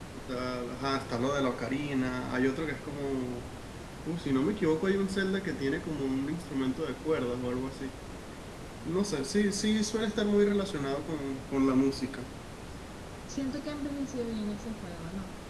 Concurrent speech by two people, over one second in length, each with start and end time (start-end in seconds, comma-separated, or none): none